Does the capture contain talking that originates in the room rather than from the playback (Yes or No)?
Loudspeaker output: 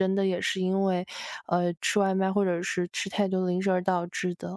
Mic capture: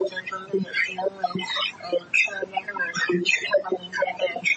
No